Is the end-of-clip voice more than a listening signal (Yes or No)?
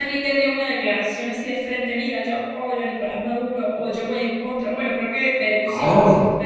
No